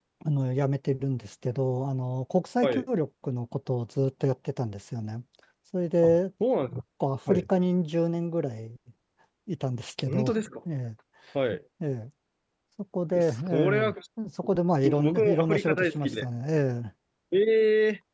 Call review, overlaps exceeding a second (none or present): present